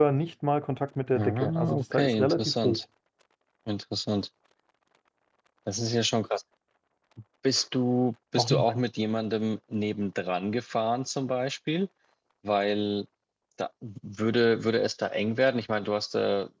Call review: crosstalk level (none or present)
present